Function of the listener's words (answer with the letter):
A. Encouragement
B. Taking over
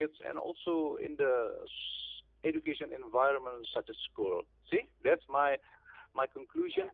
A